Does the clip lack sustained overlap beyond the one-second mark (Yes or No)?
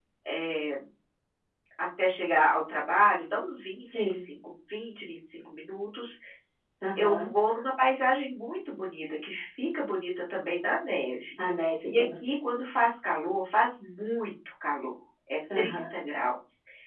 Yes